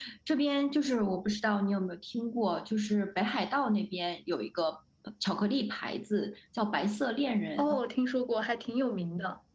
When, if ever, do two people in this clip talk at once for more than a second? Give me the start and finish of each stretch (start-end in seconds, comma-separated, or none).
none